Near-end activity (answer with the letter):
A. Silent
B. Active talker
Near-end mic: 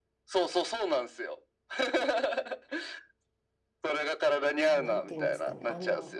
B